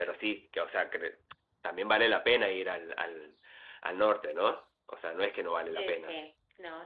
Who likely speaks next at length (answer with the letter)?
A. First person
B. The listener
B